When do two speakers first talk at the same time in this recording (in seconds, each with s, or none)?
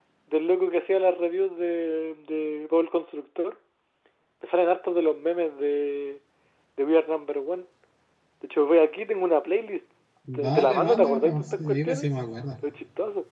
10.3 s